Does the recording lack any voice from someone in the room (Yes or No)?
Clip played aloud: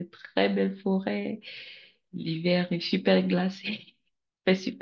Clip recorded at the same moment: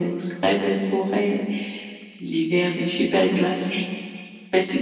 Yes